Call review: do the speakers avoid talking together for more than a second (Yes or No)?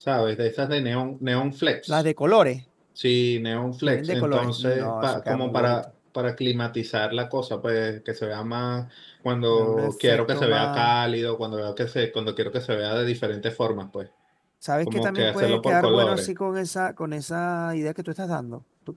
No